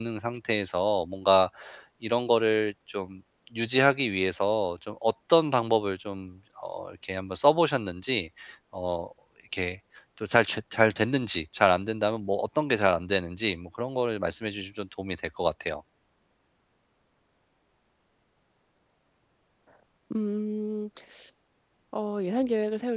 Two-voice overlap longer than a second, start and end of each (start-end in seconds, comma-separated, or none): none